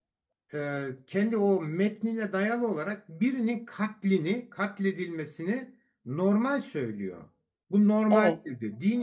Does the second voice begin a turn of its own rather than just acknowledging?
No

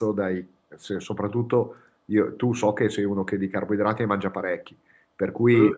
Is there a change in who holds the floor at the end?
No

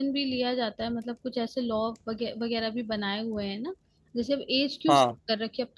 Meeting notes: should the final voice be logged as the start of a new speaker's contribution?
No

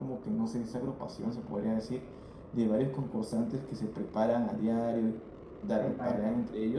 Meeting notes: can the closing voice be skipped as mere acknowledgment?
Yes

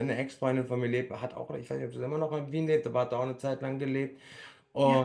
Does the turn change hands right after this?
No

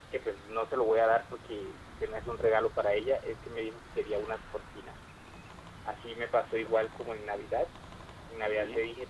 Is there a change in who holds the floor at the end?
No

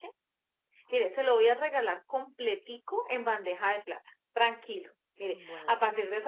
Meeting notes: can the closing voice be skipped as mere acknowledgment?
Yes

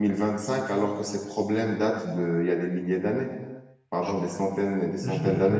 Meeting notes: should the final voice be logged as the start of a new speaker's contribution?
Yes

